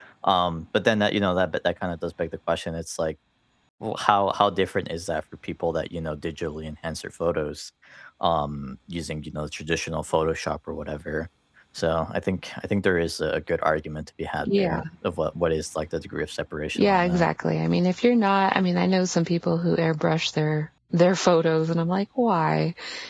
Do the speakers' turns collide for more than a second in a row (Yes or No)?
No